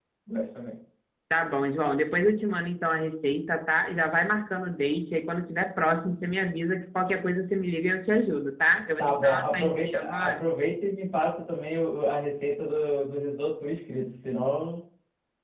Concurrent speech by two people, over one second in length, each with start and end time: 9.0-10.4

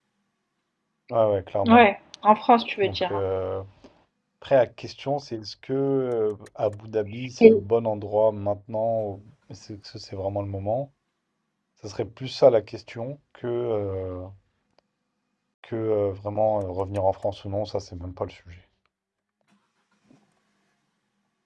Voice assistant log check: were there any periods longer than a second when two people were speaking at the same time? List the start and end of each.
none

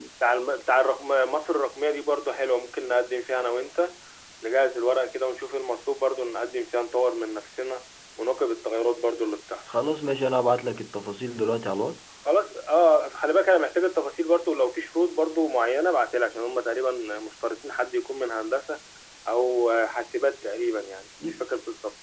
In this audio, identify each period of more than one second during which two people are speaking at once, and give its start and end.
none

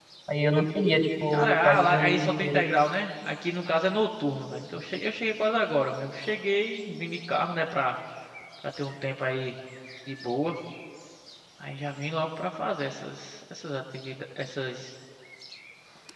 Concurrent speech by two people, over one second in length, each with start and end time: 1.3-2.6

